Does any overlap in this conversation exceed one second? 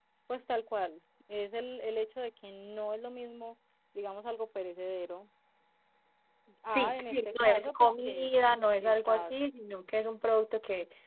Yes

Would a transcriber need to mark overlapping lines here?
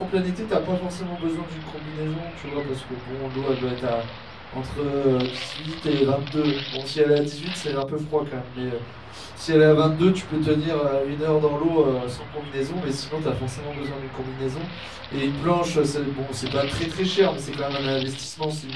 No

